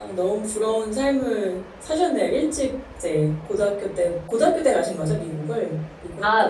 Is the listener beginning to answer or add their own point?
Yes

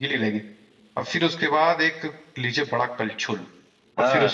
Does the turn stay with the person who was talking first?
Yes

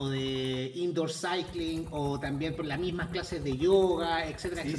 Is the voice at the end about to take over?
Yes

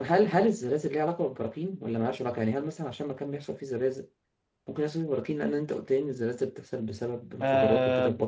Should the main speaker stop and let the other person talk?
Yes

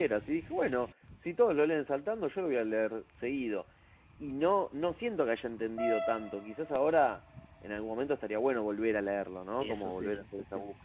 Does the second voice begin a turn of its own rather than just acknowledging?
No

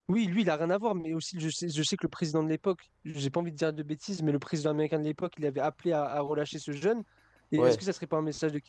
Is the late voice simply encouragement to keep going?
Yes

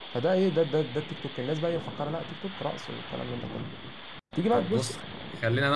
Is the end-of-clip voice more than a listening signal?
Yes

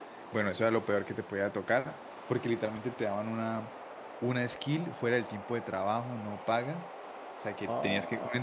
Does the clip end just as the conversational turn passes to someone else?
No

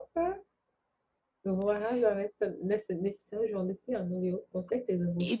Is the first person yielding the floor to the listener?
Yes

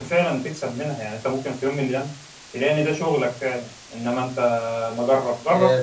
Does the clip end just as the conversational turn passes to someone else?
Yes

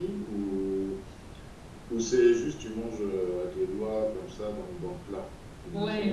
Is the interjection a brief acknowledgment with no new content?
No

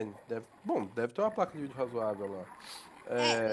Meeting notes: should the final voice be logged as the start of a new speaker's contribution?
Yes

